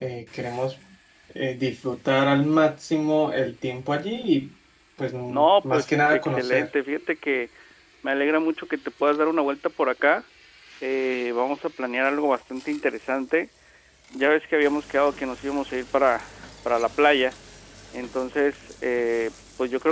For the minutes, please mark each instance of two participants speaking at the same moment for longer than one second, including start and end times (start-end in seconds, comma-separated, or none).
5.3-6.7